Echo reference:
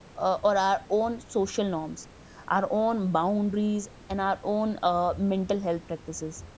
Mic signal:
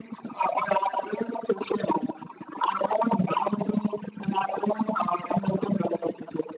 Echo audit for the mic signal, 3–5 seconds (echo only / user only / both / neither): echo only